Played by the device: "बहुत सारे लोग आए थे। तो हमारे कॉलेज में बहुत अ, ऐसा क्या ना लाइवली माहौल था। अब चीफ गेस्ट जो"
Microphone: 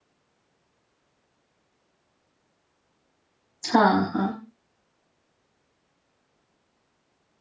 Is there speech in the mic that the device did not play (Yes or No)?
Yes